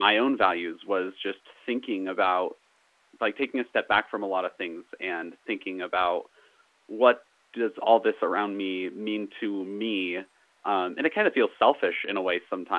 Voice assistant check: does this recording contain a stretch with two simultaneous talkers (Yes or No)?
No